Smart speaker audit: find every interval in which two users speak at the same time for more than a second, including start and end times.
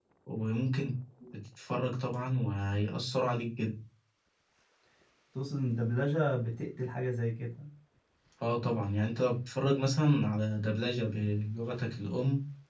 none

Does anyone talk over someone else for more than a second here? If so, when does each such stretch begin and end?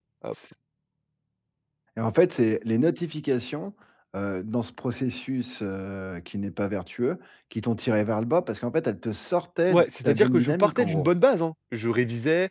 9.7-11.1

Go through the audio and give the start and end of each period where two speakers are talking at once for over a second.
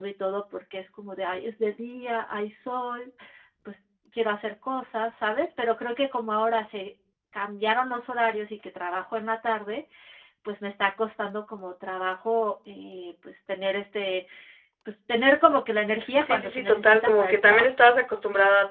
16.2-17.7

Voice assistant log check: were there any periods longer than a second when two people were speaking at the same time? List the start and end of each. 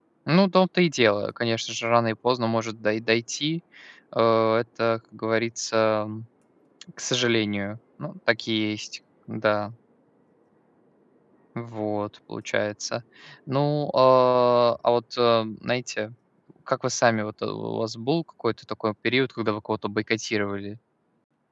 none

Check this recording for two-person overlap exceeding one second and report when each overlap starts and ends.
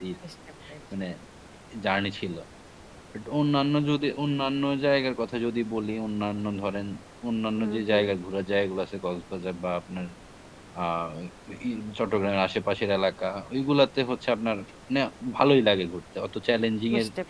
none

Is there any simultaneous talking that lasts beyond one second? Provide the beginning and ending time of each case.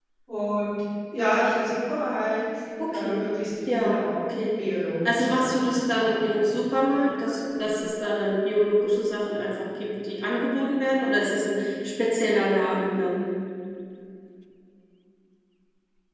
5.0-6.4

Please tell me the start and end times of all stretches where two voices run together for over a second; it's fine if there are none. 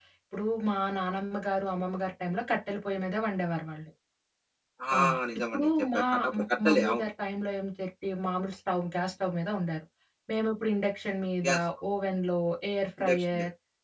5.5-7.0

